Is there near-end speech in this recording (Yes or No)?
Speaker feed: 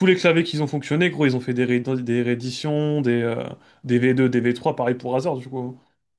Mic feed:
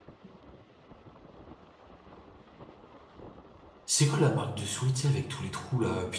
Yes